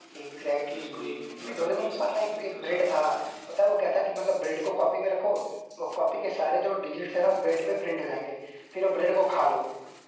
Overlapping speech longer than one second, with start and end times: 0.7-3.1

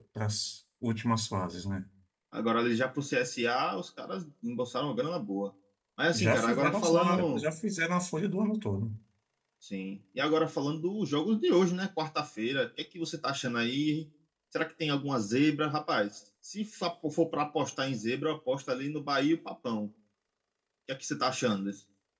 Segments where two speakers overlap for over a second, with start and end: 6.1-7.4

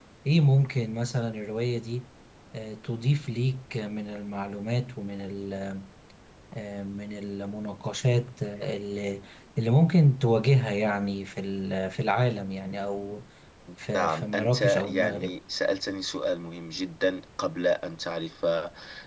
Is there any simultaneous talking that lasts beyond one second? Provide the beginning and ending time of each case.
13.9-15.3

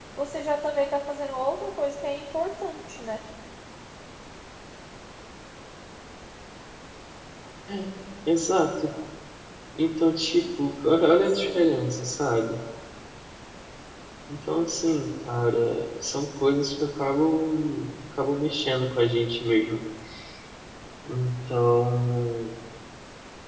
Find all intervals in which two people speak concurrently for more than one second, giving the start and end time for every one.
none

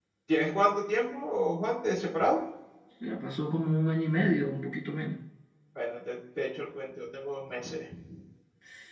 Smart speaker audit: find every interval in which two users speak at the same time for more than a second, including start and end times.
none

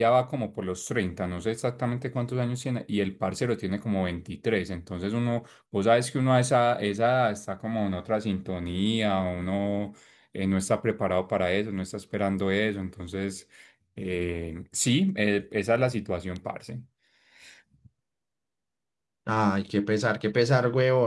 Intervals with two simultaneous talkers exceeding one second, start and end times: none

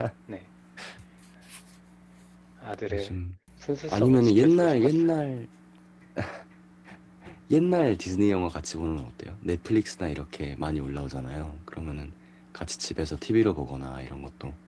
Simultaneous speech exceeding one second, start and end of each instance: 3.9-5.1

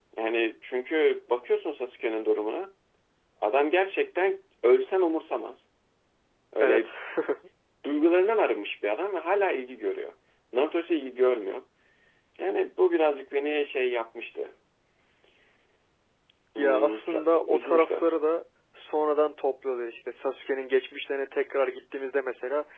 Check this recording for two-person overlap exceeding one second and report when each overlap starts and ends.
16.6-18.0

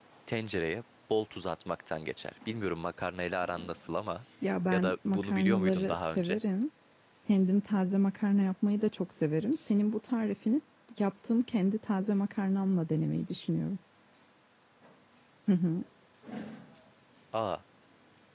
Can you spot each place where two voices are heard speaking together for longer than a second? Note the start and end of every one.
4.7-6.4

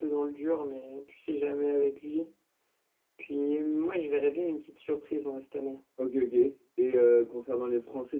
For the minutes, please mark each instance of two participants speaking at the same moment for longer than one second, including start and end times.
none

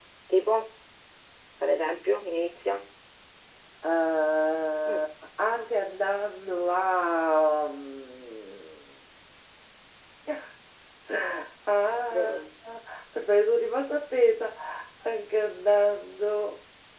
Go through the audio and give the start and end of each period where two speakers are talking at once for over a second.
none

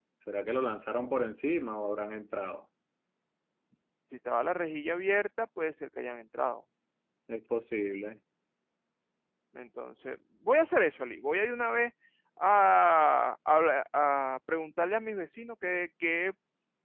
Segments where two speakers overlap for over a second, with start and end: none

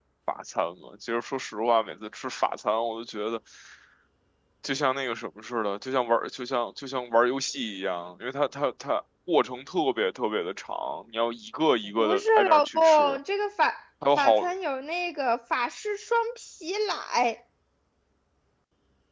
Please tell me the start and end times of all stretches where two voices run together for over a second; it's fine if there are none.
12.0-13.2

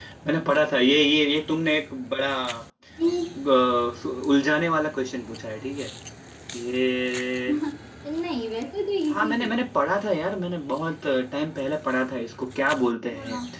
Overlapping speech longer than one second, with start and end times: none

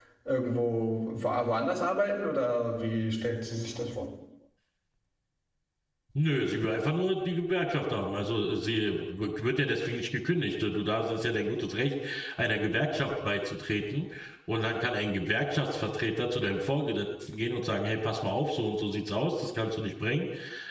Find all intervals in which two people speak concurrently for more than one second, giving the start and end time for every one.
none

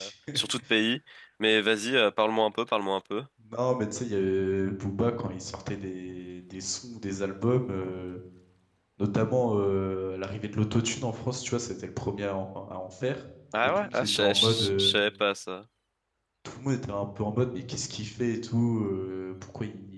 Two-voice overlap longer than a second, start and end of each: 13.6-14.9

